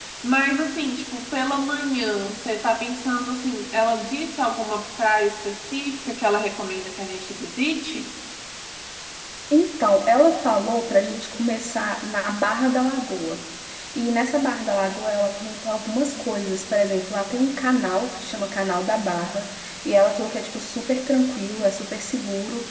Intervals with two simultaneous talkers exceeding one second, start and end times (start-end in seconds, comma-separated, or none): none